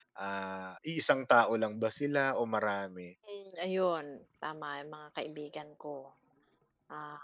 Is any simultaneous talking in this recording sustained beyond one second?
No

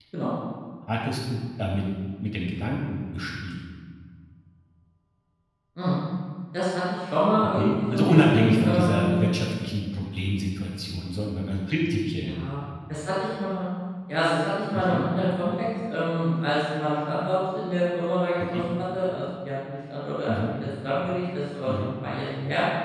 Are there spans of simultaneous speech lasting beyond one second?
Yes, from 7.4 s

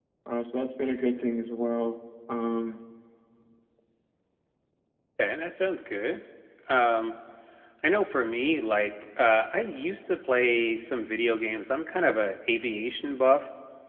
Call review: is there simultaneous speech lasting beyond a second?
No

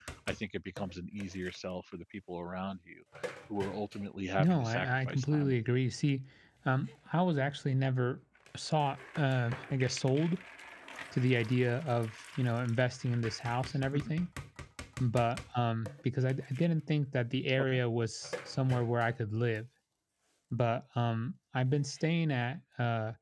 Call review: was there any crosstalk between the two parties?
Yes, from 4.4 s

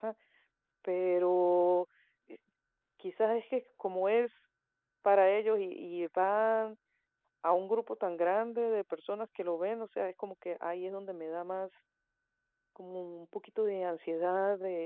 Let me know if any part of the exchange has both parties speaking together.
No

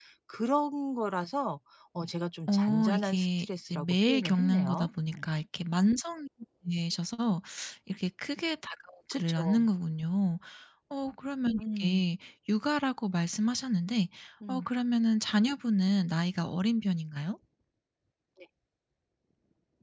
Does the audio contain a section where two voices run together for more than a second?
Yes, from 2.5 s

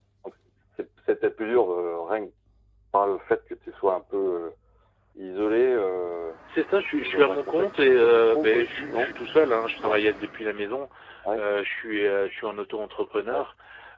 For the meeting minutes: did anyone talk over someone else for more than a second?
Yes, from 7.0 s

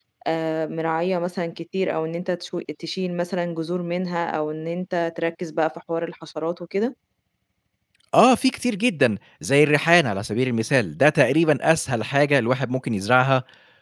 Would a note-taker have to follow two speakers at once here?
No

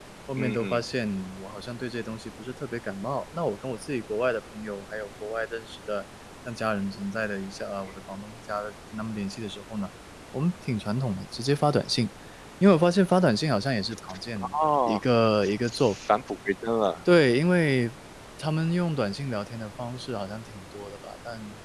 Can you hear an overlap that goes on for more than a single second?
No

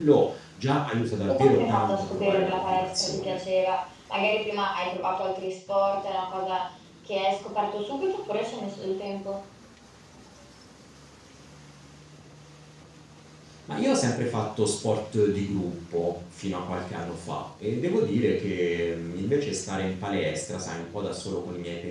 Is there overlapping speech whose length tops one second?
Yes, from 1.3 s

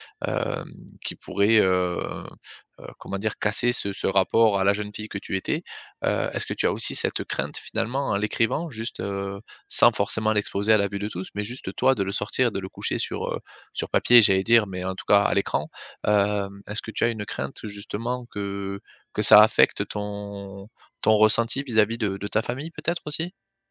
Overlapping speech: No

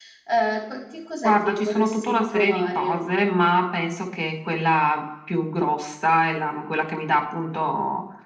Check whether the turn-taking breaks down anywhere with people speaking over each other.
Yes, from 1.2 s

